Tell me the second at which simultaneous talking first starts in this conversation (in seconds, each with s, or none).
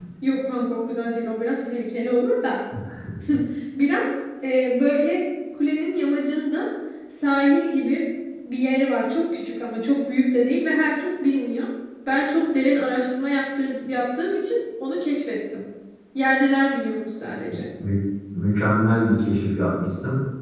none